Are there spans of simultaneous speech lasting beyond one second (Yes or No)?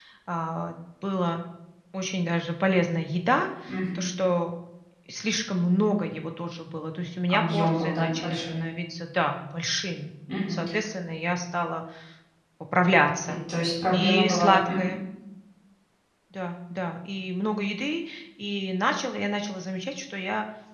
Yes